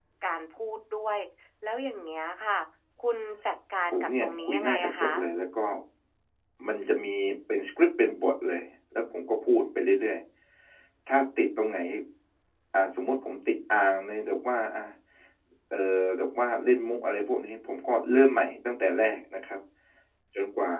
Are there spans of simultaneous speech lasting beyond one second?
Yes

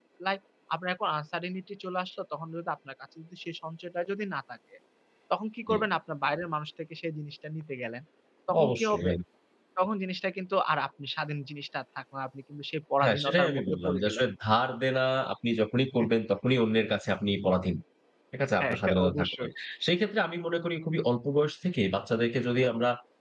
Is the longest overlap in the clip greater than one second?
Yes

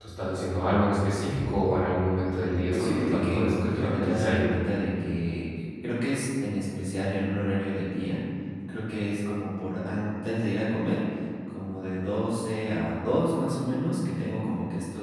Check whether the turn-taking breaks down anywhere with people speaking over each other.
Yes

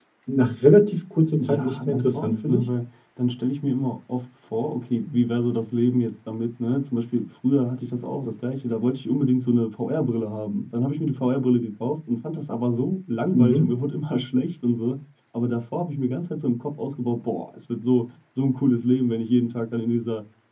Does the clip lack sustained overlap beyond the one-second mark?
No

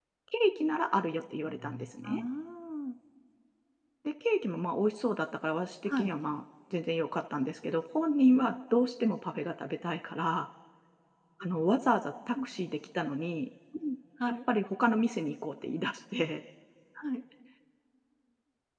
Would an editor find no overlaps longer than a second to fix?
Yes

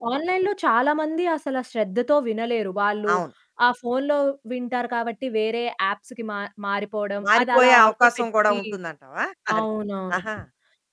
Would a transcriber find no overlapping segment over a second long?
No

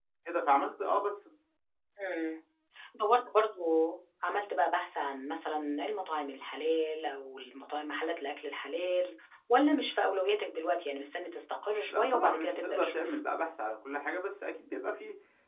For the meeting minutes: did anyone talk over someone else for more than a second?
Yes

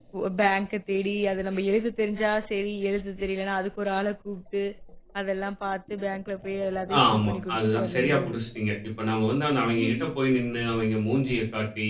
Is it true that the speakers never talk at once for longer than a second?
No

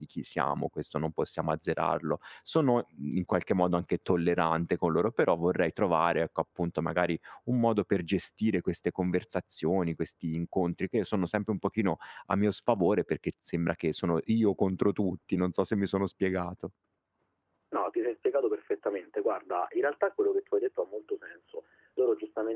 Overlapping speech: No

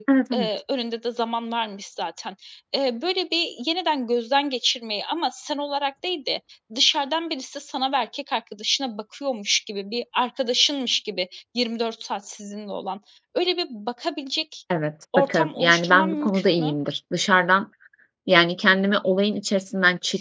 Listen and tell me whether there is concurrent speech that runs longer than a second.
Yes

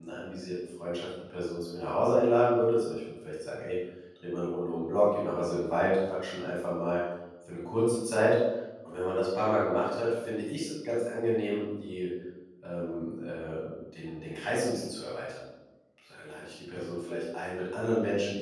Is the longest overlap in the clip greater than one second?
No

